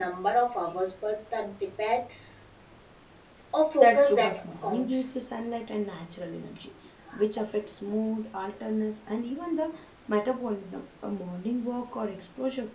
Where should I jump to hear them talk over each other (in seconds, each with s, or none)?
3.8 s